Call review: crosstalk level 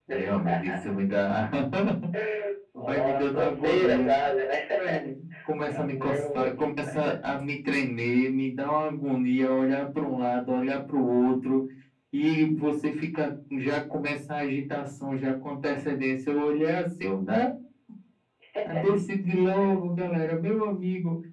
present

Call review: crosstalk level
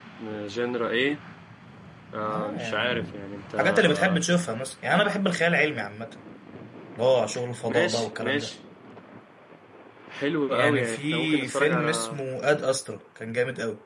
present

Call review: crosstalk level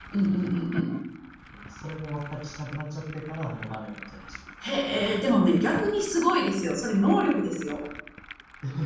none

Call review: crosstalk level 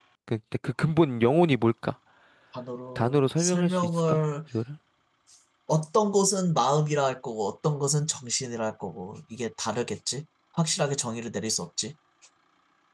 present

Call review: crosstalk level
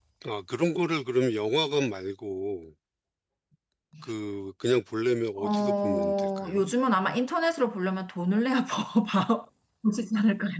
present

